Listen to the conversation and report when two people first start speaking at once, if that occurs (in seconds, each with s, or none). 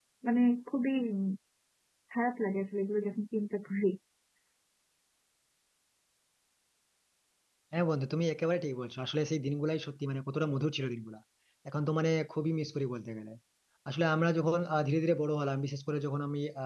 none